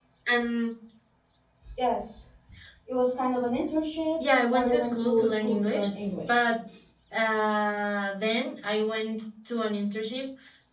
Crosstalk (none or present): present